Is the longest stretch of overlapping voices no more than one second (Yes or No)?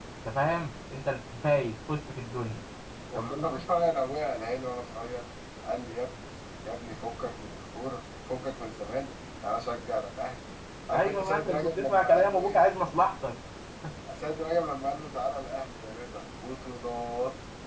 No